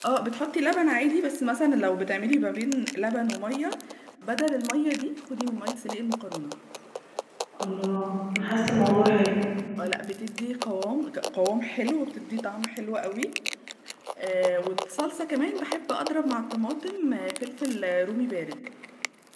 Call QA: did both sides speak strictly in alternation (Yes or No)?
Yes